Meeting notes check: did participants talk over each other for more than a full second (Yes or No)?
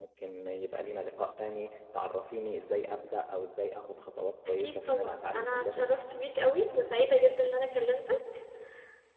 Yes